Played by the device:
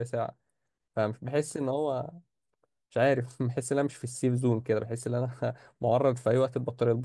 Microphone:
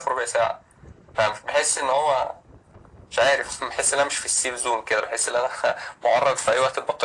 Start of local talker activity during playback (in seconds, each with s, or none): none